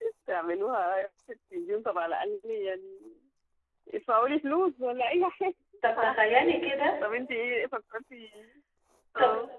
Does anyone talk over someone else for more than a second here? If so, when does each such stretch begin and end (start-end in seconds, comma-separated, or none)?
none